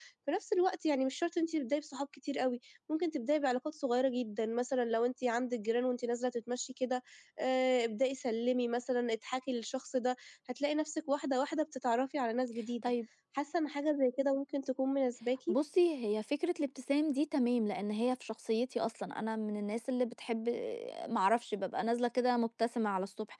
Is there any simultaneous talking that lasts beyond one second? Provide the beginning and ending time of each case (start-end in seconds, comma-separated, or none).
none